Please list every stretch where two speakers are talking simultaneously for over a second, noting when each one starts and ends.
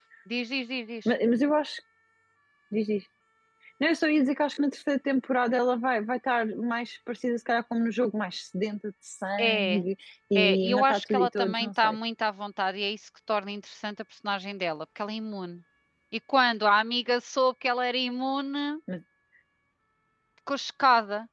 10.3-12.0

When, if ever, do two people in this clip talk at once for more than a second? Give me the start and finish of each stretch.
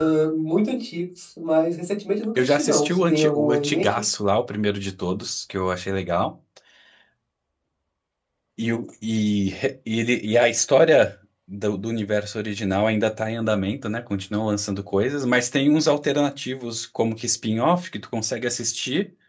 2.4-4.0

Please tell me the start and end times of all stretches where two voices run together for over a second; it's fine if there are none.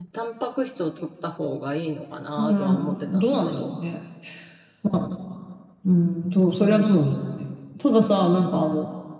2.4-3.7

